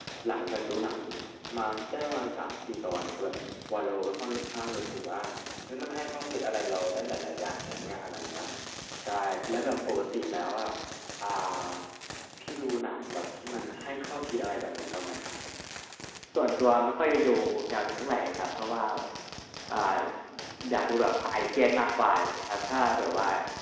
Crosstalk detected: No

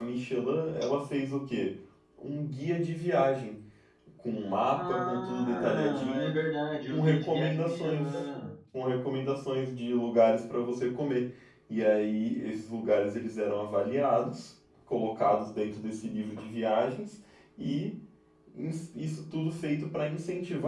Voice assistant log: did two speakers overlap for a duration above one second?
Yes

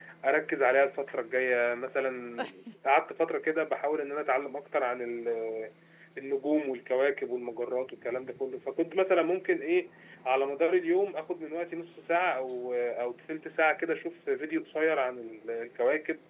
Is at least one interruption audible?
No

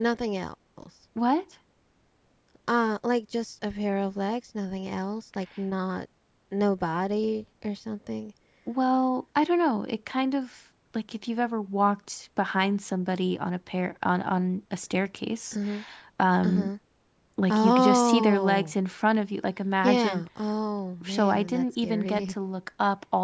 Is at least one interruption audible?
Yes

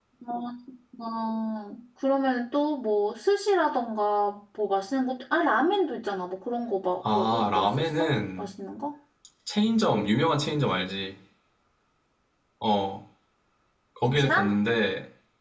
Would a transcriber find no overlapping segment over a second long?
No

